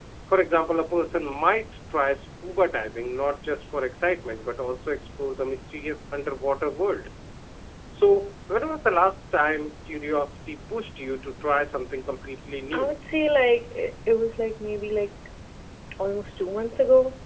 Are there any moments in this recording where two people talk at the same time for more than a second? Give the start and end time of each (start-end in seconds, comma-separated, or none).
none